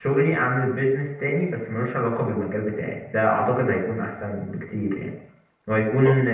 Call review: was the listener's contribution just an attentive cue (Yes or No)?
Yes